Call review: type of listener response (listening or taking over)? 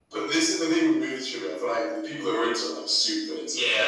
taking over